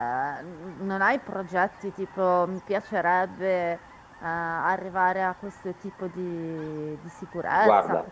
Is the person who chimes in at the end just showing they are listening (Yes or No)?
Yes